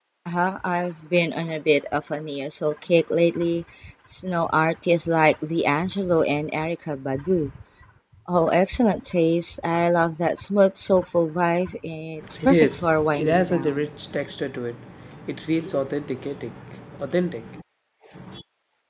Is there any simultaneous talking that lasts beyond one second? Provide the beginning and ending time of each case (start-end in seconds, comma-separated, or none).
12.4-13.9